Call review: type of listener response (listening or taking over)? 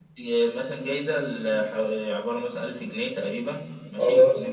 listening